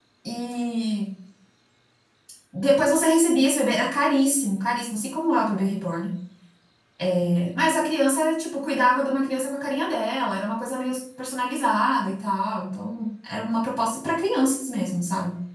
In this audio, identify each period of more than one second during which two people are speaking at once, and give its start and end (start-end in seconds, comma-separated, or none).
none